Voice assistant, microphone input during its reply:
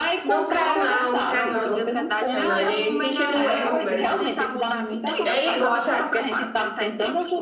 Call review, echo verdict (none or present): present